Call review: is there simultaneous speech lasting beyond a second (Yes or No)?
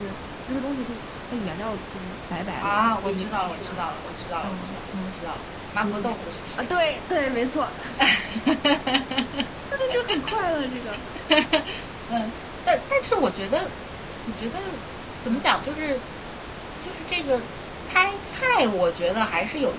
Yes